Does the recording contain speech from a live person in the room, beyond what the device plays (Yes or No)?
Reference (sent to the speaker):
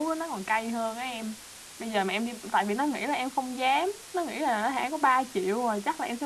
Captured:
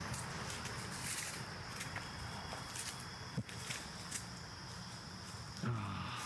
No